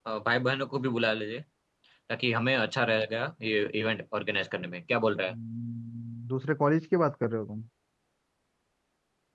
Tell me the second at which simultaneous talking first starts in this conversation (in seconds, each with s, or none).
none